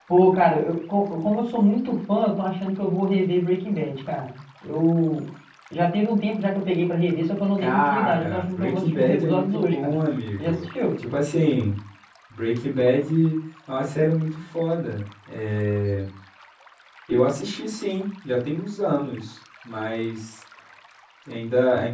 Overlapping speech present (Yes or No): Yes